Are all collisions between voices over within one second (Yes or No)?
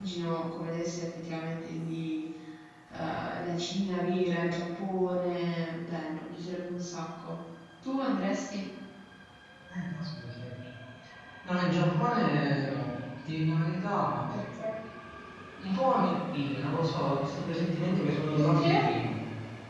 Yes